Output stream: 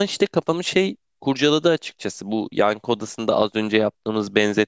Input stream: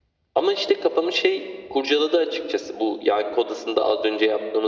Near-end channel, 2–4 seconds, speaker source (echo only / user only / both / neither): echo only